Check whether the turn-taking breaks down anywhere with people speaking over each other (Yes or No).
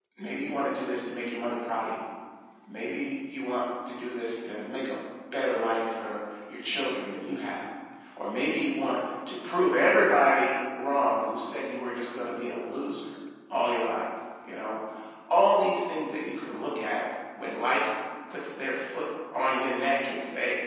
No